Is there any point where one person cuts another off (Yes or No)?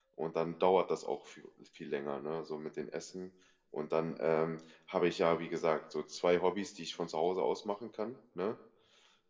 No